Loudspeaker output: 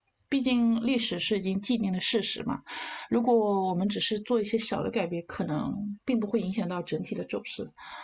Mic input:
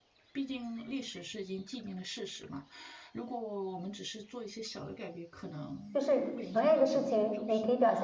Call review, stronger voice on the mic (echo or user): user